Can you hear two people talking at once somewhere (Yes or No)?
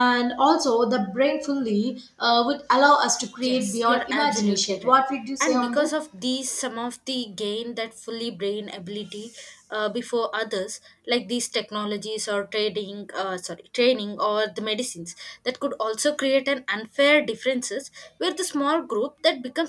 Yes